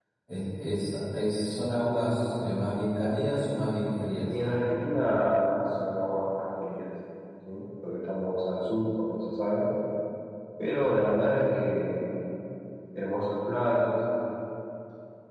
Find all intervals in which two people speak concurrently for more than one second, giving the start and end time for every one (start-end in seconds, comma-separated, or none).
none